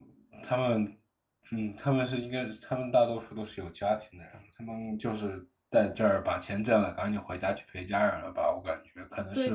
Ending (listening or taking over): taking over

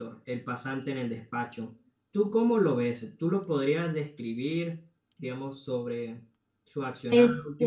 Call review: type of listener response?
listening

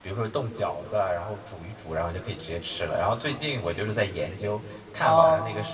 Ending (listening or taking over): taking over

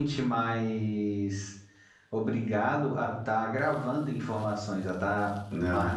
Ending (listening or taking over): listening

